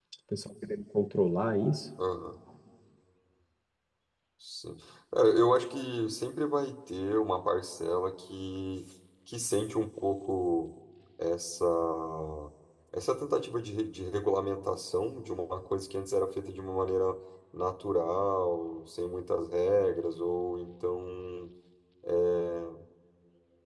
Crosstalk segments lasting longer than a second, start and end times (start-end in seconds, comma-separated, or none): none